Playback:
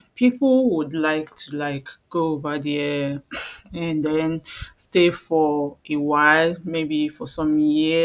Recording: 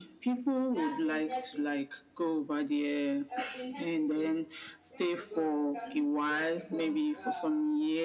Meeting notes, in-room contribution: present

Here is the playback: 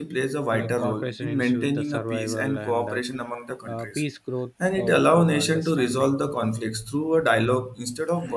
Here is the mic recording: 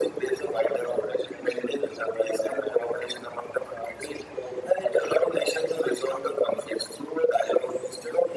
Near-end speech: none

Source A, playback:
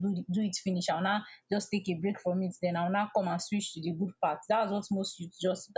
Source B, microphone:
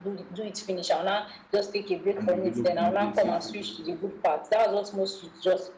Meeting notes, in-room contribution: present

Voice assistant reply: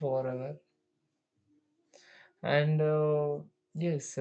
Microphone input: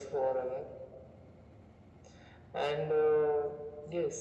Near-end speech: none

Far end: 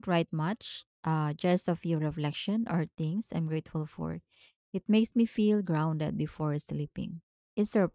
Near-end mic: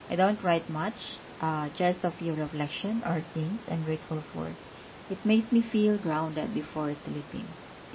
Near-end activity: none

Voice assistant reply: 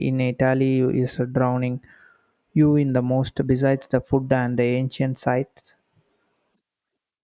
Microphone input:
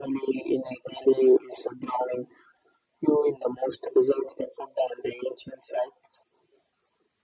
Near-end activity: none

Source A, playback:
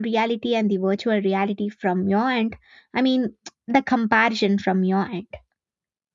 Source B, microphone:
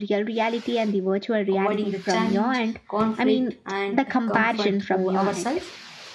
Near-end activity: present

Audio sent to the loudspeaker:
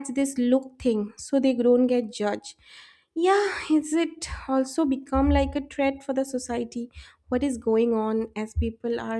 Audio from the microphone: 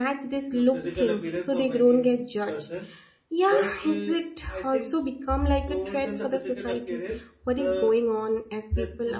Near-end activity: present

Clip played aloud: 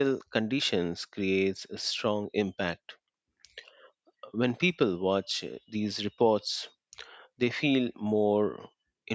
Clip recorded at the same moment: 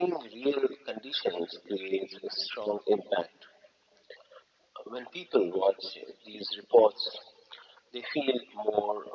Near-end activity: none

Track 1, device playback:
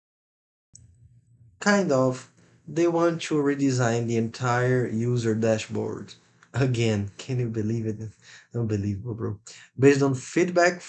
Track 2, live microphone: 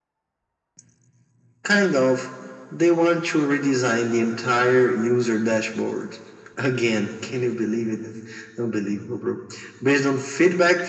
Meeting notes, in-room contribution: none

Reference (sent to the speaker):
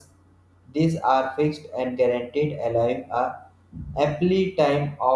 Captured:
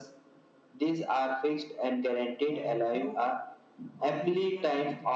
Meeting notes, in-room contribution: present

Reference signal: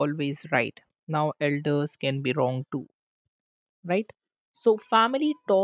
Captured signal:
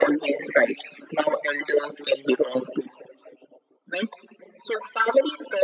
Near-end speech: none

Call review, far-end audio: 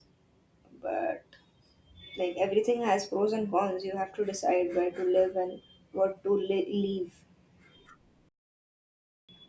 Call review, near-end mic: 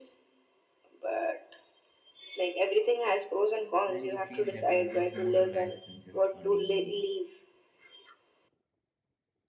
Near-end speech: present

